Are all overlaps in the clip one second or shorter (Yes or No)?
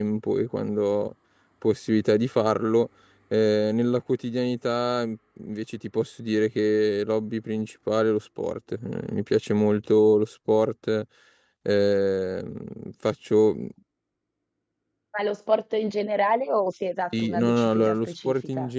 No